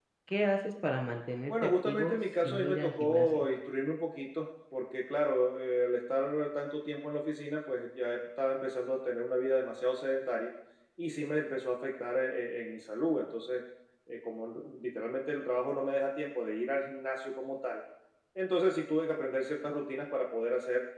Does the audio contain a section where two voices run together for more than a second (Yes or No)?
Yes